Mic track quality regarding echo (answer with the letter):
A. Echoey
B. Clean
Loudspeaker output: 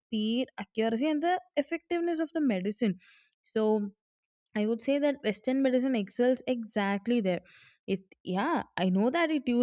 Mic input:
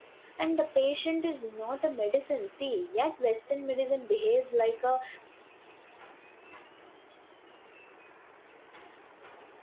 B